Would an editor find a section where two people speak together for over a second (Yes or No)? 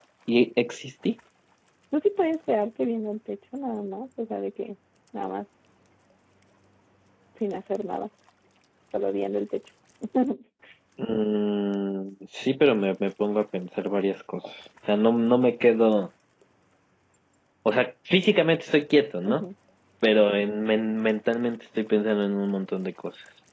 No